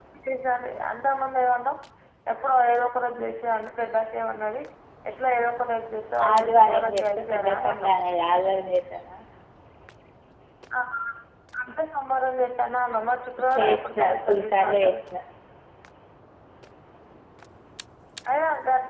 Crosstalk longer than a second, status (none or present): present